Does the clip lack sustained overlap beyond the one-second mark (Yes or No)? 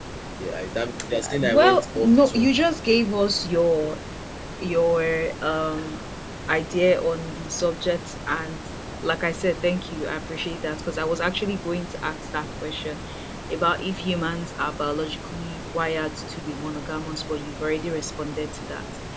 No